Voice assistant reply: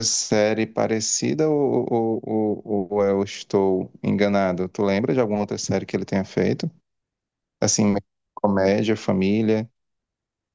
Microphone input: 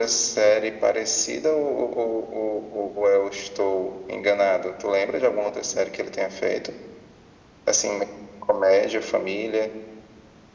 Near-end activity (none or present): none